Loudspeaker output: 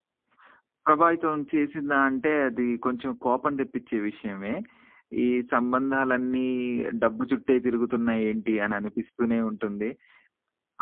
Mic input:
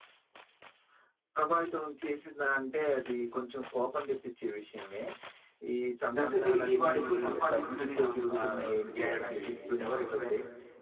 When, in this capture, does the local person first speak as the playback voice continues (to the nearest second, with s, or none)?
6 s